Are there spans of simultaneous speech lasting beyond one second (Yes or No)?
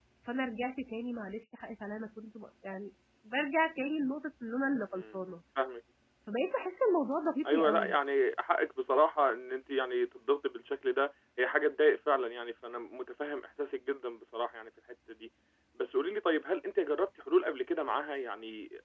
No